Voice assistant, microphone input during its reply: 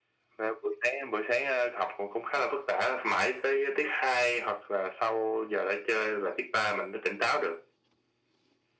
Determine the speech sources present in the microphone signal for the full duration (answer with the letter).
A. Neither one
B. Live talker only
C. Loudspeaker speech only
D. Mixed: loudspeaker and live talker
C